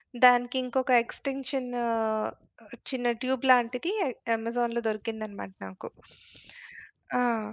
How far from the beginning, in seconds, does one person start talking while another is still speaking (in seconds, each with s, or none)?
none